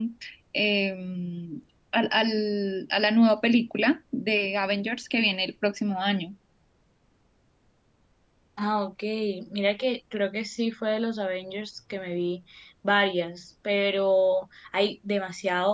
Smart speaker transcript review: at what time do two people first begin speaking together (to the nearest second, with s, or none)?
none